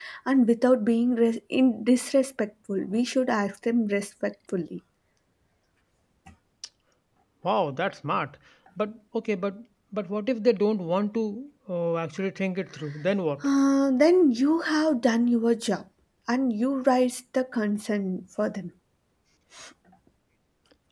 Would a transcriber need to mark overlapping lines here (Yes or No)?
No